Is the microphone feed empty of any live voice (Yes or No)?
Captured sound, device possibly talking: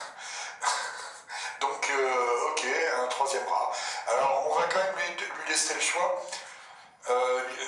Yes